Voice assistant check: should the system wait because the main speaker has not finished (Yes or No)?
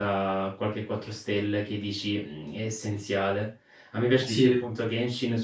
Yes